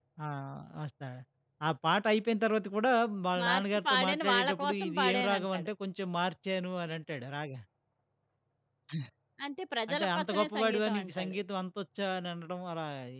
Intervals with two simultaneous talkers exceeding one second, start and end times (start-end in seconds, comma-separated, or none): 3.4-5.7, 9.9-11.4